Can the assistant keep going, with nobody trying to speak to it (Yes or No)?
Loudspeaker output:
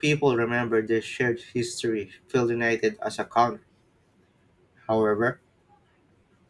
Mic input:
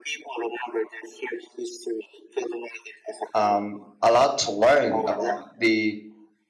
No